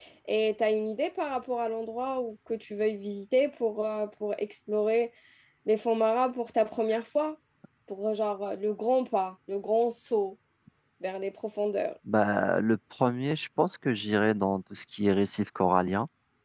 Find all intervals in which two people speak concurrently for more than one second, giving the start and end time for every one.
none

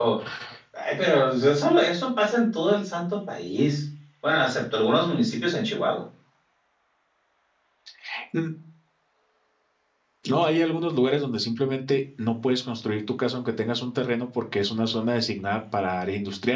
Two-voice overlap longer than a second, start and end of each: none

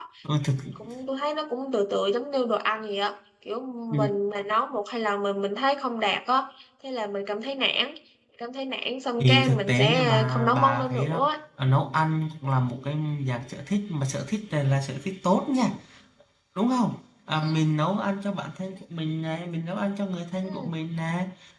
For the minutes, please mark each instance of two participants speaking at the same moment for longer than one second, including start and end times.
9.2-11.3

